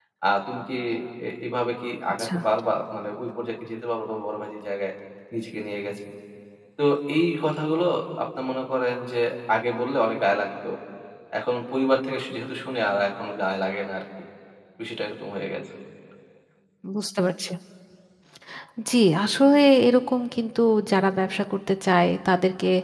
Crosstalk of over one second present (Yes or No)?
No